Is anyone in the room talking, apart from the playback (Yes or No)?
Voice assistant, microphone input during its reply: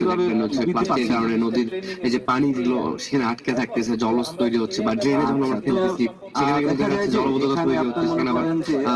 Yes